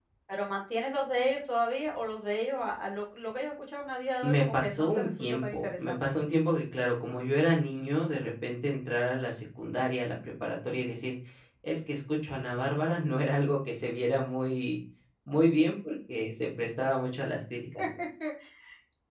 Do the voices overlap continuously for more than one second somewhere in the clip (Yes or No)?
Yes